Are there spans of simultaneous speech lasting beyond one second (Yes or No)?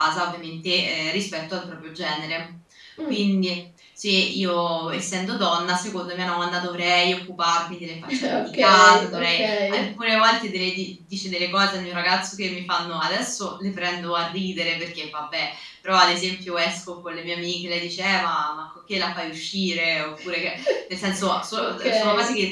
Yes